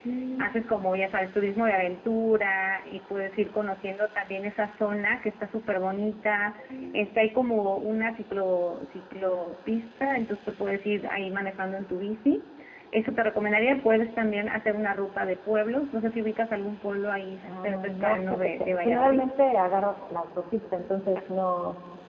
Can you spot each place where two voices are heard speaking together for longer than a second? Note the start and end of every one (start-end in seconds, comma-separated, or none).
17.4-19.3